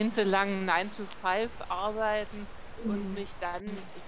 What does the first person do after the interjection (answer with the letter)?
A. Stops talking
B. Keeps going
B